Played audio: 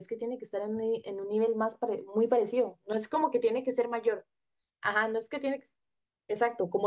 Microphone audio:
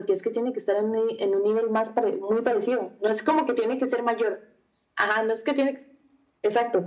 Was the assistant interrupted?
No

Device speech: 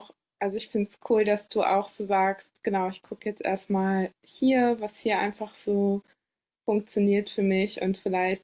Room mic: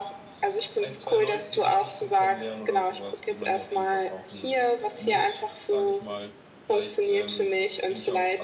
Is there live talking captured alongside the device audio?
Yes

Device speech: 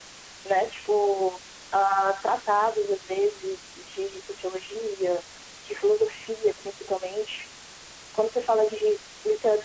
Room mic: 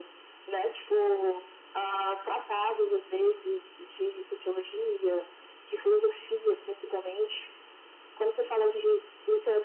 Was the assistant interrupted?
No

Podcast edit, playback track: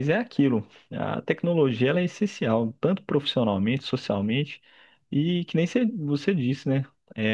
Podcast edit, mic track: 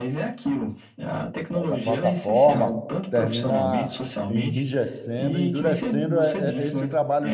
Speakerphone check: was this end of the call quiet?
No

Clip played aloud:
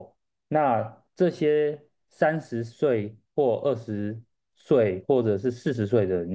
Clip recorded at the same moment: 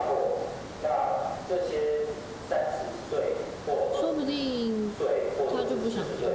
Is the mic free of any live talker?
No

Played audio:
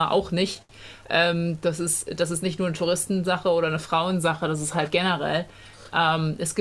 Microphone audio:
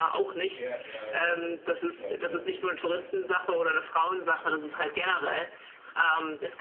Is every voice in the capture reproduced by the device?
No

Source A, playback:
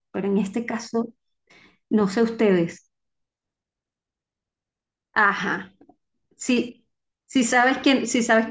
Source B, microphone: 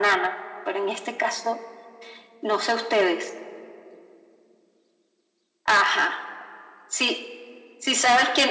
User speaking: No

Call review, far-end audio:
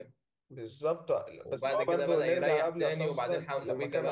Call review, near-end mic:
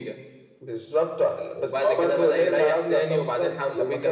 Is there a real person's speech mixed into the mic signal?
No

